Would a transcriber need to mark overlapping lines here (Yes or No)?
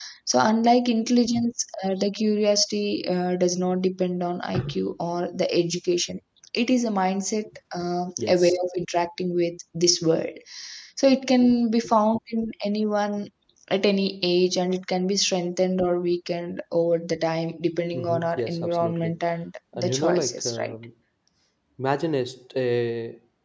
Yes